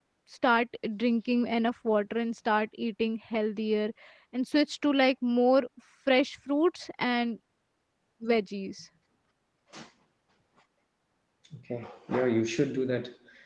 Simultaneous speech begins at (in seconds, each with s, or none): none